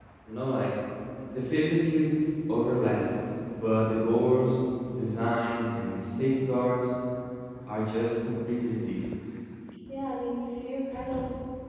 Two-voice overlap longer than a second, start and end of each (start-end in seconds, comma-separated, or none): none